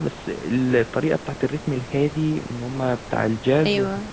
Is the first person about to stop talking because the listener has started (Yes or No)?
No